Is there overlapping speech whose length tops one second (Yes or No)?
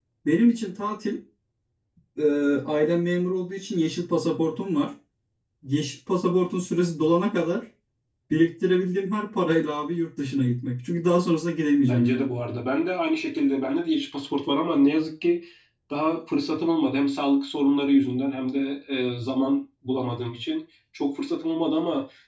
No